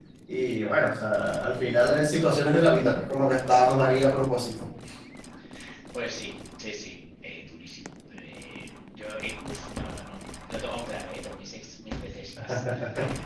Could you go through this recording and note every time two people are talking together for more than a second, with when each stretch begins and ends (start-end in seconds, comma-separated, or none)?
none